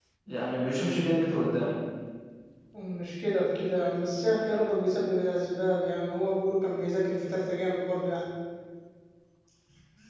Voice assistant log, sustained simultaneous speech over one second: none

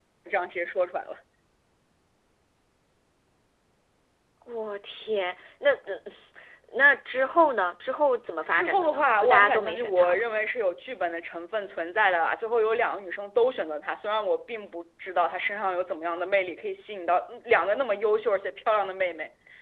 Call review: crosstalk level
present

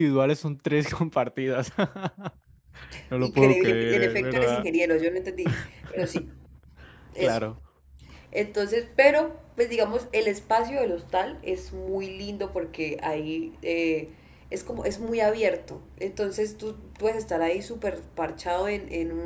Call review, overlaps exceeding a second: present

